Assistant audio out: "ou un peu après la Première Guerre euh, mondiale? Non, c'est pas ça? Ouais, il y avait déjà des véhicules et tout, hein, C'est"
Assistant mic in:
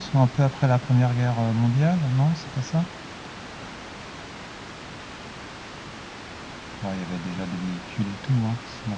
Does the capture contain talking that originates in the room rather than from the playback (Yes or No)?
No